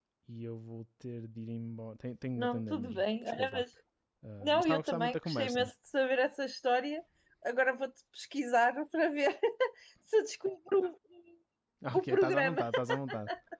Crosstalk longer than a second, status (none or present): present